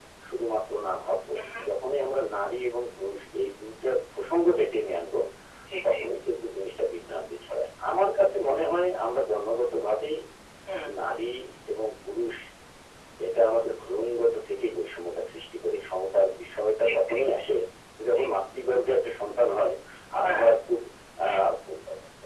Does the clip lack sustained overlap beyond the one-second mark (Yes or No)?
Yes